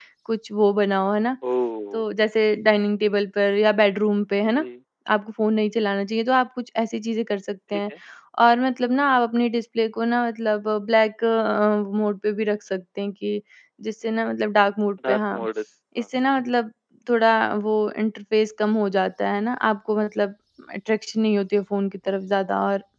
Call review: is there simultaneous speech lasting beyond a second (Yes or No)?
No